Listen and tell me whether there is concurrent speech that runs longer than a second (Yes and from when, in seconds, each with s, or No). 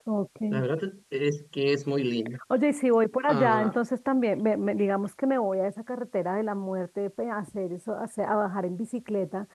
No